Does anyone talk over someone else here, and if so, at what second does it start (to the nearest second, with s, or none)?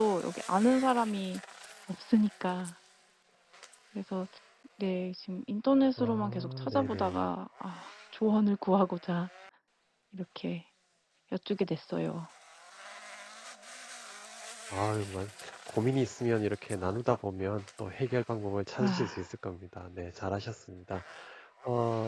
6 s